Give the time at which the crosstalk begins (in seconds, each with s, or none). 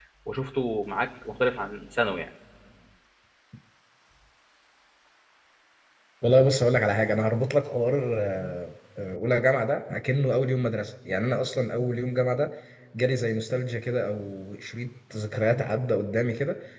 none